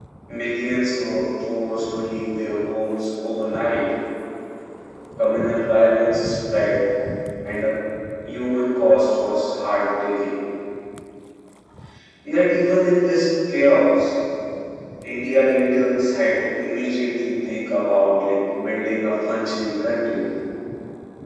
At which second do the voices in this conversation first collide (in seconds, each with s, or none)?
none